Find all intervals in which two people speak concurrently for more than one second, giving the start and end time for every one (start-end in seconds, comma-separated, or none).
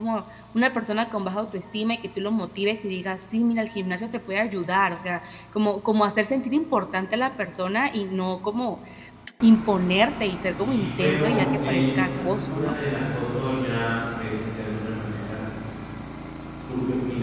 10.6-12.8